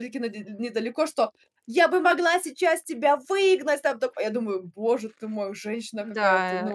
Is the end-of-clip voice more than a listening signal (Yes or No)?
Yes